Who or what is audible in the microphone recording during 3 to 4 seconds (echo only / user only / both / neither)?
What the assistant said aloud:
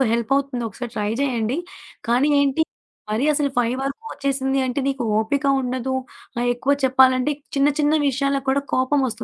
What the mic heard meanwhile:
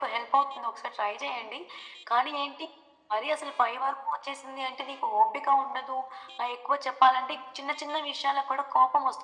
echo only